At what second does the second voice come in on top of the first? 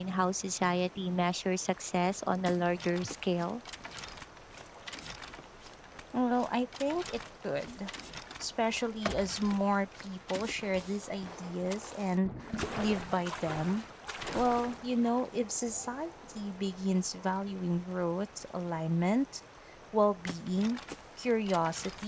none

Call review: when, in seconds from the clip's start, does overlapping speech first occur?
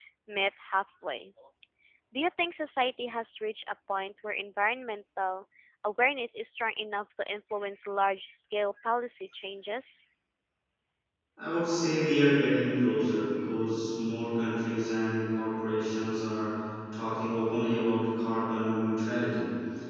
none

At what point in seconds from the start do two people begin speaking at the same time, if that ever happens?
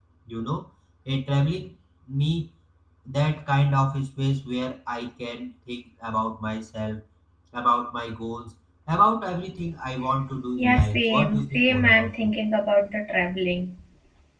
11 s

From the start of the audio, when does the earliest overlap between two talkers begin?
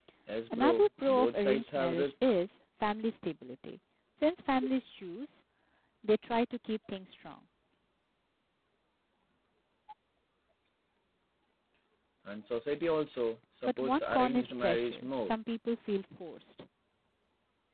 1 s

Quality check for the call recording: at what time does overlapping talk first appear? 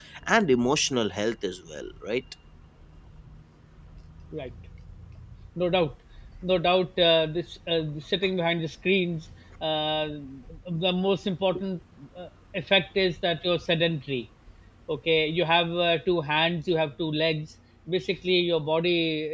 none

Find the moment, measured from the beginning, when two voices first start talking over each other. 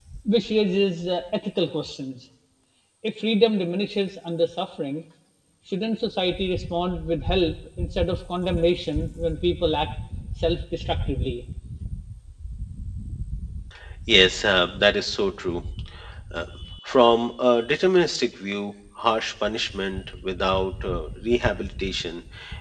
none

